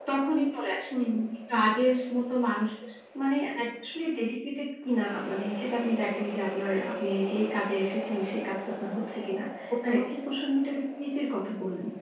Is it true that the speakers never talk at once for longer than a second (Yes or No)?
Yes